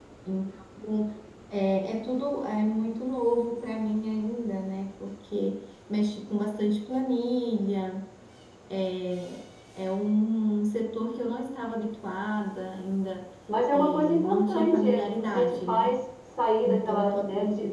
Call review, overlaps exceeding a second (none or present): present